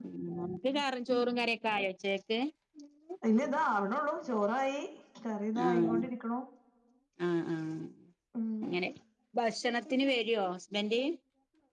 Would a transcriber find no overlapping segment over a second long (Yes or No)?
Yes